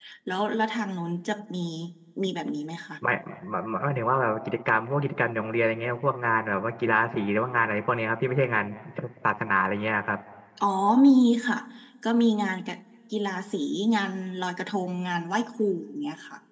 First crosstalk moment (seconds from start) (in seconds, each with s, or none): none